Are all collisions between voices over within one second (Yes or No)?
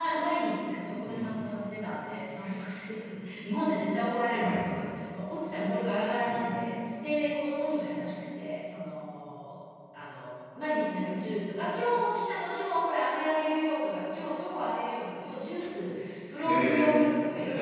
Yes